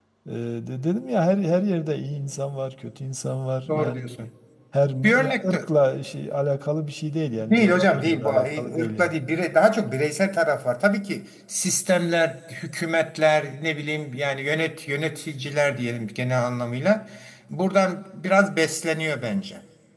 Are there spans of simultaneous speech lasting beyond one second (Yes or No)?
Yes